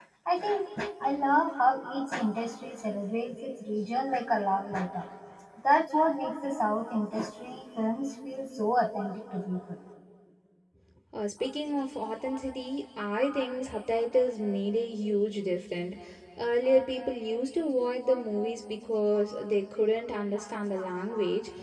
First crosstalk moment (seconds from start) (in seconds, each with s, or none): none